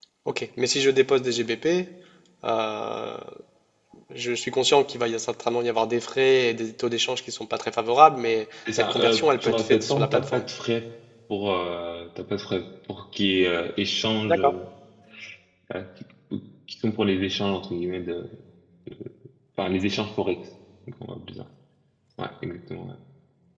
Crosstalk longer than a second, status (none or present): present